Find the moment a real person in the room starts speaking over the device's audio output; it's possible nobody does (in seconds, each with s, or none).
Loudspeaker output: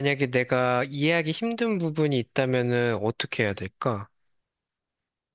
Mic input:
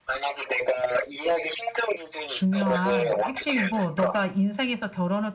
2.3 s